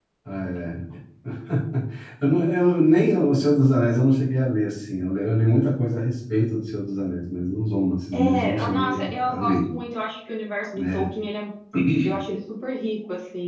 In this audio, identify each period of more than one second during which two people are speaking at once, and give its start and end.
8.1-9.6

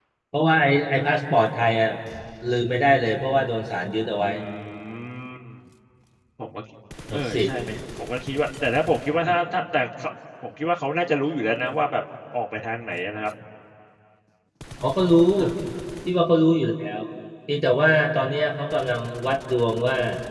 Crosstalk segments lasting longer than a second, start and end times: none

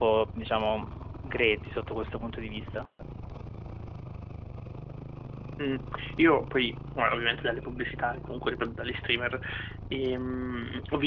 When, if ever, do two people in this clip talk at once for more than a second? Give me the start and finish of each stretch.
none

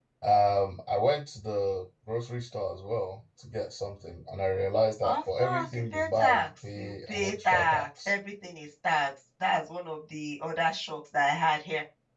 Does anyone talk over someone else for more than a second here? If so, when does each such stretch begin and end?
5.0-8.1

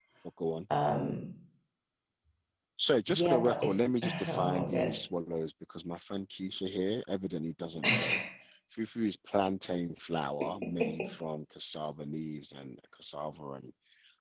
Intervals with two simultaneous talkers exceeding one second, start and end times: 3.1-5.0

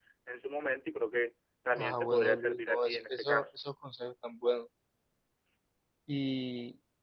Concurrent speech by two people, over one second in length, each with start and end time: 1.8-3.5

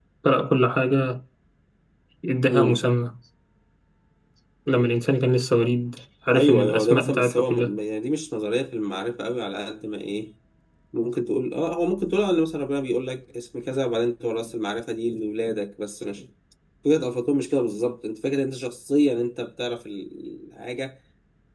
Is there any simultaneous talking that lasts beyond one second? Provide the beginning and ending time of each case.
6.3-7.7

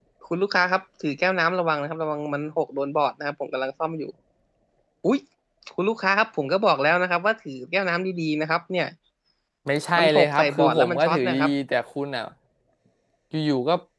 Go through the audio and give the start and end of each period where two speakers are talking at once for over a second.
10.0-11.5

